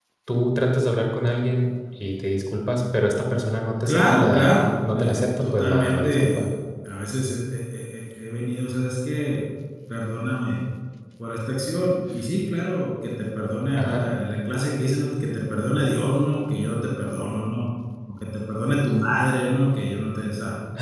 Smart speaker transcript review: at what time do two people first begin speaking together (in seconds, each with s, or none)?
3.9 s